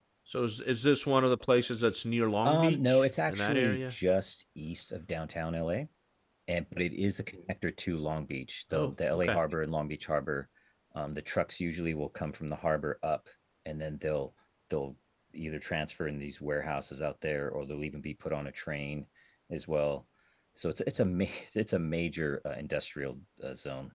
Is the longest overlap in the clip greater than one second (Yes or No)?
Yes